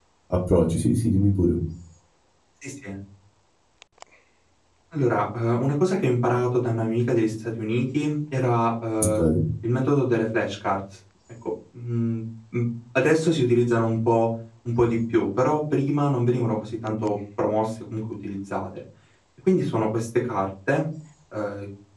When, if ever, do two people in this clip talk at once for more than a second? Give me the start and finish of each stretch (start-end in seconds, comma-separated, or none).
none